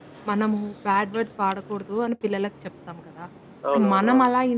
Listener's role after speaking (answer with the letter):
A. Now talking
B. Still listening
B